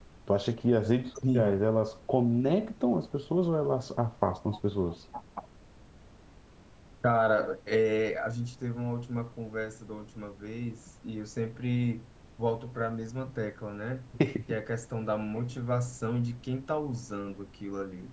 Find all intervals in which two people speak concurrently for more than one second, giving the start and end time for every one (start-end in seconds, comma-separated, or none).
none